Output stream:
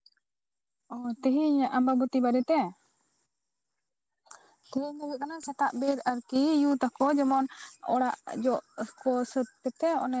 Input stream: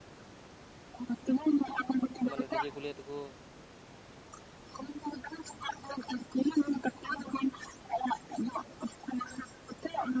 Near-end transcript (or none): ᱢᱟᱱᱮ ᱰᱤᱡᱮ ᱠᱚ ᱞᱤᱭᱟ ᱛᱠᱚ